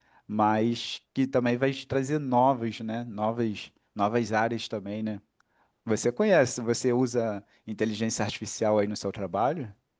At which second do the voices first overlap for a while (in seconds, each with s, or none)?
none